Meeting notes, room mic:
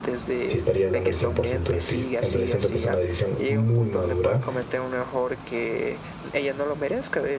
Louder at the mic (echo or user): user